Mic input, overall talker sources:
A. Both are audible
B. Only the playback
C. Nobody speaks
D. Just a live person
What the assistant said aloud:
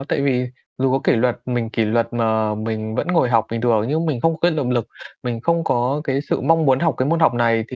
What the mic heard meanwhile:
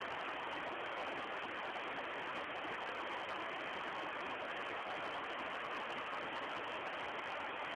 C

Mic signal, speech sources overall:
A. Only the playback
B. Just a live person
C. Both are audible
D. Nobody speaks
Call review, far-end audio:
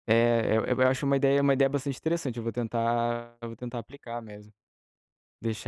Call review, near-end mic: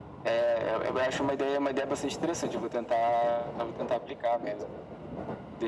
A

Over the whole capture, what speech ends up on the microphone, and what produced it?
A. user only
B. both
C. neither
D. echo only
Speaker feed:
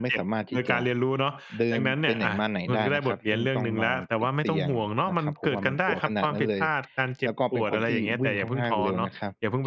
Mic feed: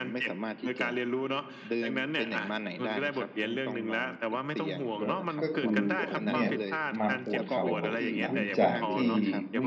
B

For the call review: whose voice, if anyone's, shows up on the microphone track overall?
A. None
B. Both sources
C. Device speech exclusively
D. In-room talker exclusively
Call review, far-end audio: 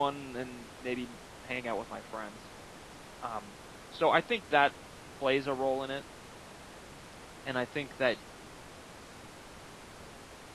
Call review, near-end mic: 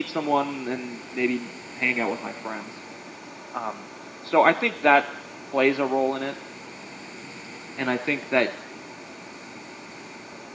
C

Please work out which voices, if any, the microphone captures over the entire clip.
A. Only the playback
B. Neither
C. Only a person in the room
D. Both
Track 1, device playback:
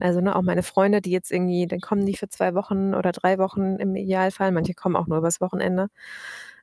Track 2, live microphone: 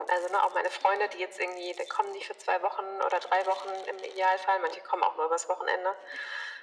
A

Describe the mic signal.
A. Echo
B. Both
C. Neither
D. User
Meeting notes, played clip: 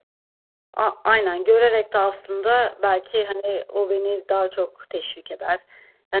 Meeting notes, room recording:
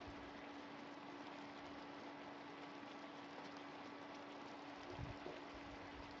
C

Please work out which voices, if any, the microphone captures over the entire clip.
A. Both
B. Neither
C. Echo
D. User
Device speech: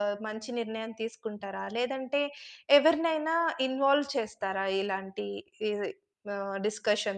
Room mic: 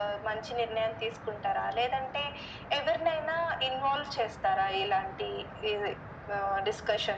C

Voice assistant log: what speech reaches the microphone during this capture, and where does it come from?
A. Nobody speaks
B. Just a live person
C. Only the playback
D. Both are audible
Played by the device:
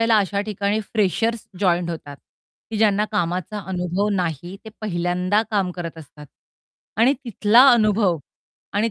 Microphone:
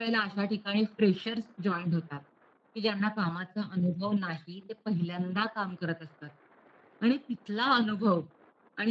C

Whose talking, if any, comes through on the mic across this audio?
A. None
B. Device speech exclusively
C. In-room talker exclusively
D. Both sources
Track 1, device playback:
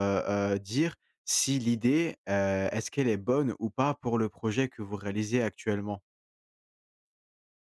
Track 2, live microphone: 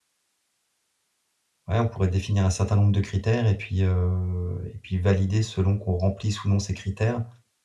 C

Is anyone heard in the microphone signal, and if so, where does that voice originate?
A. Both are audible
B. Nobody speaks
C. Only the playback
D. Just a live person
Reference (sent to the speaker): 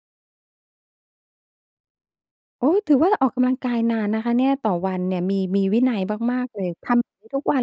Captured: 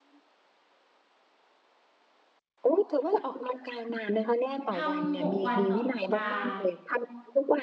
A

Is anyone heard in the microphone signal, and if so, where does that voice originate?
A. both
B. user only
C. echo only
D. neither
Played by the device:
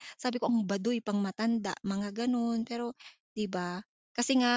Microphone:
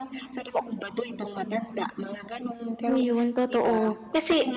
A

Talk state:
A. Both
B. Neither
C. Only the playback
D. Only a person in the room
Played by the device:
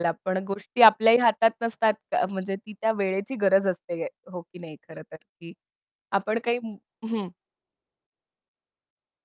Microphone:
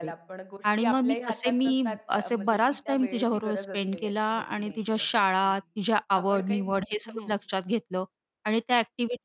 A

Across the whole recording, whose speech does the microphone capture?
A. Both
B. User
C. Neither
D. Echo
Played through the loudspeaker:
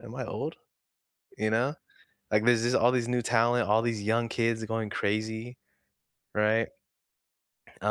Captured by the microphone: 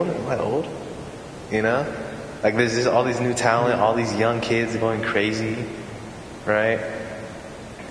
A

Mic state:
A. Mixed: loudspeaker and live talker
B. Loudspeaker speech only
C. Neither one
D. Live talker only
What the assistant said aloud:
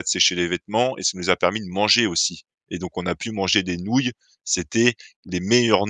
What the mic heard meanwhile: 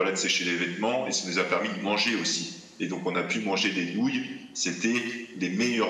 B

